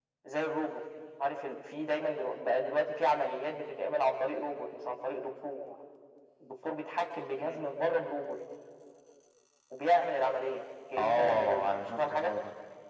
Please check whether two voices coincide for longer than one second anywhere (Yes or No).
Yes